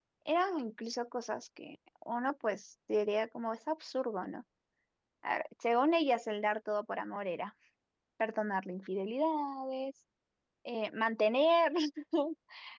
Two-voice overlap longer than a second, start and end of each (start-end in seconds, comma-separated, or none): none